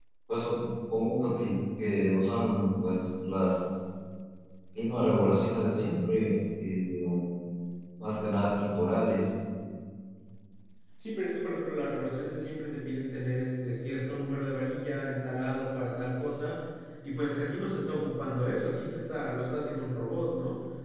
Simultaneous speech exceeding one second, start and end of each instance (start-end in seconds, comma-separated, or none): none